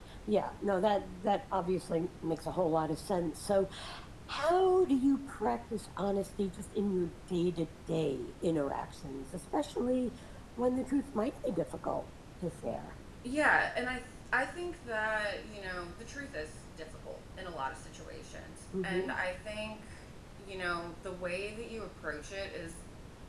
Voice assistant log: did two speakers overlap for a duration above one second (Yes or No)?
No